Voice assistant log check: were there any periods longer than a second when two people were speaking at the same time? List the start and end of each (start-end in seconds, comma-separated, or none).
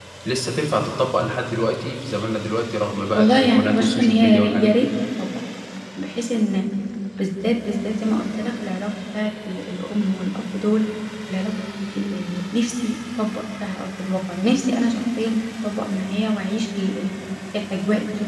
3.1-4.9